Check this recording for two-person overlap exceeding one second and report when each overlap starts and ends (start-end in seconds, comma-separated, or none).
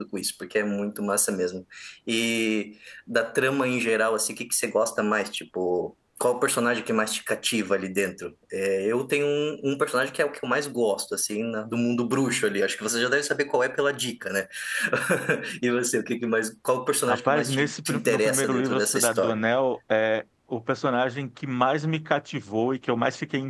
17.1-19.4